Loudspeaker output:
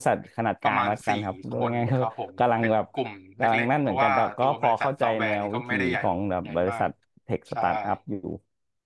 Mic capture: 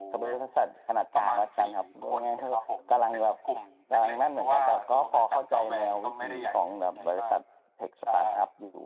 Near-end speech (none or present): none